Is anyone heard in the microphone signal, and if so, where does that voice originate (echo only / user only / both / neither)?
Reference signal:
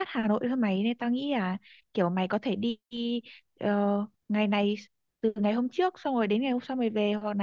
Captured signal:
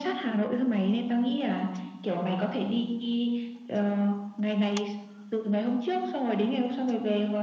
echo only